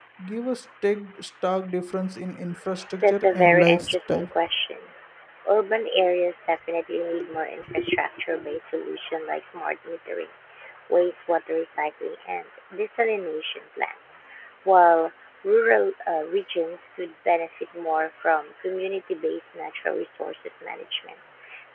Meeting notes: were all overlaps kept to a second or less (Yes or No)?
No